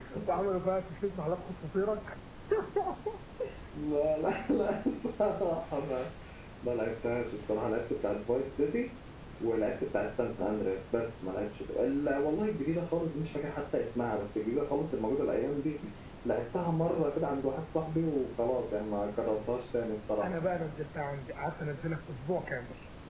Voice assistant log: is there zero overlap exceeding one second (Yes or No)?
Yes